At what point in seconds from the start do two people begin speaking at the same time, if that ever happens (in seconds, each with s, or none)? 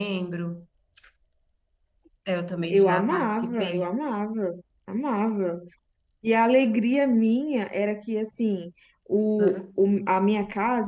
2.7 s